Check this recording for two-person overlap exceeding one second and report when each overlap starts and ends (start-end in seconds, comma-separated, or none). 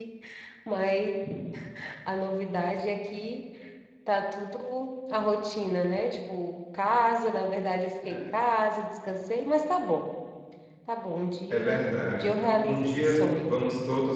11.5-13.6